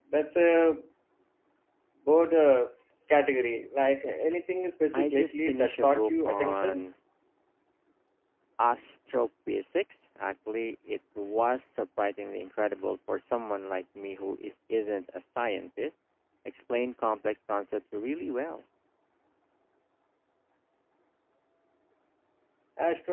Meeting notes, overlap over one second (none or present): present